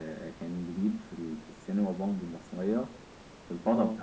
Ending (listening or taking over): listening